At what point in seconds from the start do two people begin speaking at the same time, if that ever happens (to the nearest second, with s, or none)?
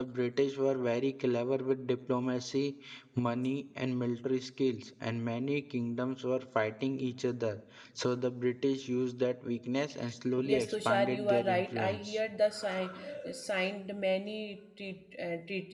10 s